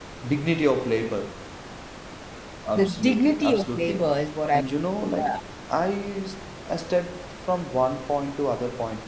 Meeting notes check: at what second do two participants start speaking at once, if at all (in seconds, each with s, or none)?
2.8 s